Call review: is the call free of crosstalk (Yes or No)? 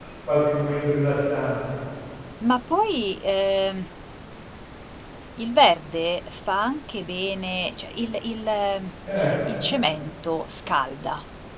Yes